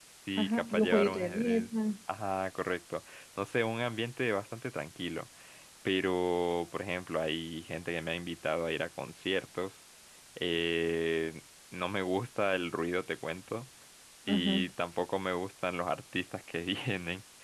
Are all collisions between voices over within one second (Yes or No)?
No